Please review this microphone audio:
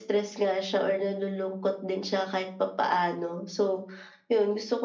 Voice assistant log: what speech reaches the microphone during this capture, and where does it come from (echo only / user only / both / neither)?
echo only